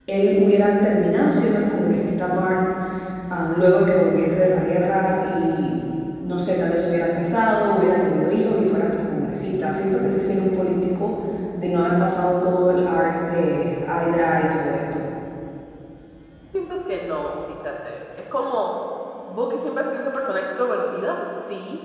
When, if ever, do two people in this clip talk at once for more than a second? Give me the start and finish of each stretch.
none

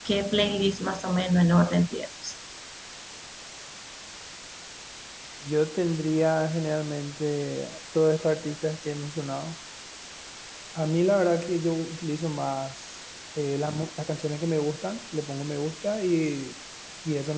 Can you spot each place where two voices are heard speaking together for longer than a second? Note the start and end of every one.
none

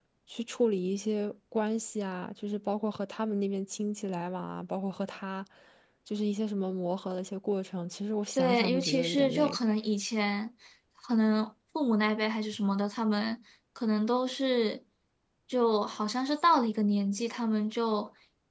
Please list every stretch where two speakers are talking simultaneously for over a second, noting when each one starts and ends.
8.3-9.6

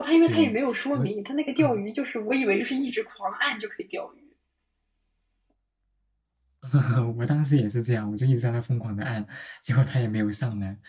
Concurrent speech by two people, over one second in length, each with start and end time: none

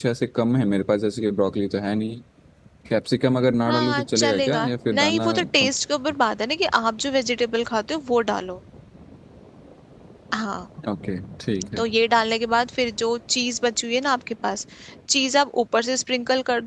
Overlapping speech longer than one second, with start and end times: 3.6-5.7

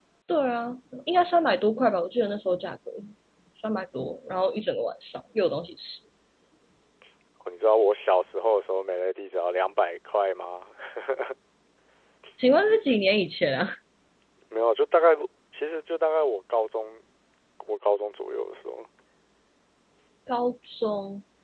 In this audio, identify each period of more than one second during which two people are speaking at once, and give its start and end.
none

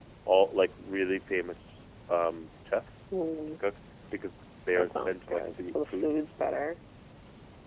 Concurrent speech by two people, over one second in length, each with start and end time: 4.8-6.1

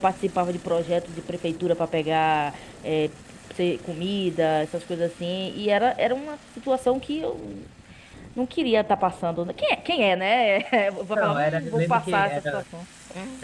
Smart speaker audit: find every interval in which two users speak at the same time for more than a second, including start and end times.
11.2-12.6

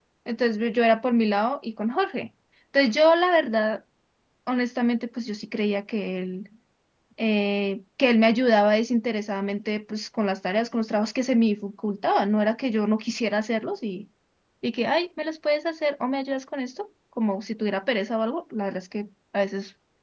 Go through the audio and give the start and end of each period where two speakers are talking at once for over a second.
none

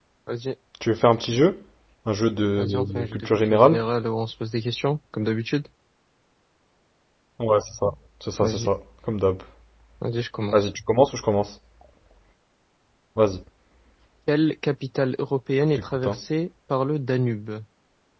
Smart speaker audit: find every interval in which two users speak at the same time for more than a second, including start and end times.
2.6-3.8

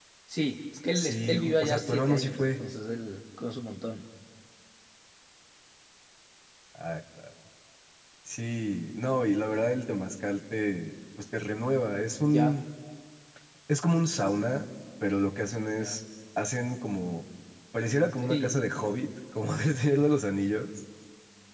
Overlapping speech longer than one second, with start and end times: 0.9-2.6

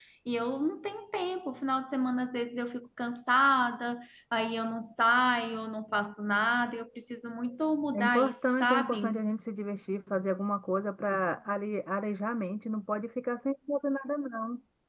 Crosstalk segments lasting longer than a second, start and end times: 7.9-9.2

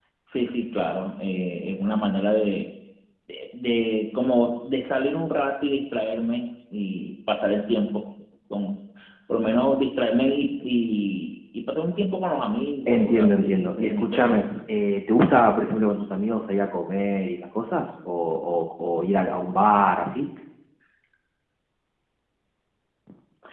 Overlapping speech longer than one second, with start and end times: 12.9-14.4

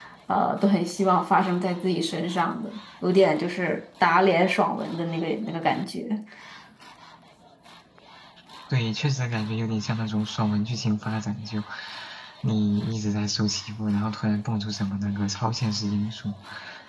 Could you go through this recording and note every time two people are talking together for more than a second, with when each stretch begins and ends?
none

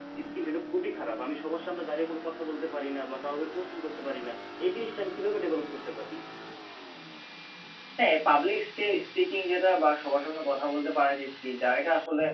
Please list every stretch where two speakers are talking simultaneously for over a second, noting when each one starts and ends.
none

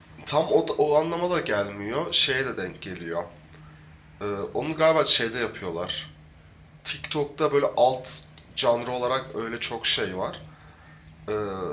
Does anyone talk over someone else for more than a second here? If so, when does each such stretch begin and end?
none

